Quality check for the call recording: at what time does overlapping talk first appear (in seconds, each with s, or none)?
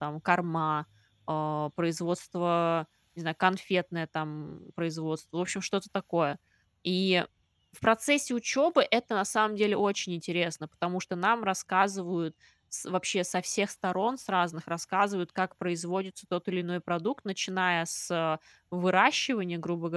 none